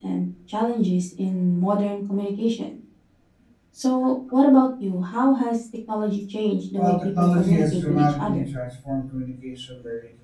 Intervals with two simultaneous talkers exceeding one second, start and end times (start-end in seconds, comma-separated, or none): 6.8-8.4